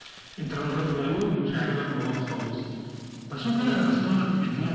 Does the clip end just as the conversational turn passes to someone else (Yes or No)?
No